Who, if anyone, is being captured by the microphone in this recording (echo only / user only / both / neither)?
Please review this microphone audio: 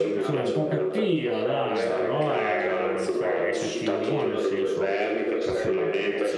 both